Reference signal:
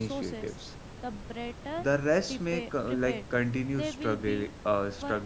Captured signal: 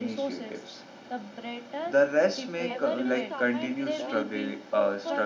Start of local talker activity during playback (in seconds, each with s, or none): 2.7 s